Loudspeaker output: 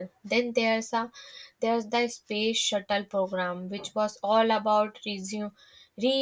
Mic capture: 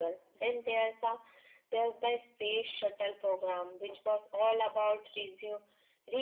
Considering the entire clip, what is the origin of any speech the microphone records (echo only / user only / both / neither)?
echo only